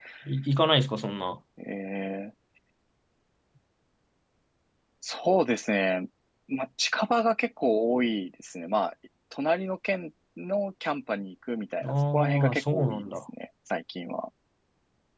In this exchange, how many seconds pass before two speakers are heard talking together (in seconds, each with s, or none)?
11.8 s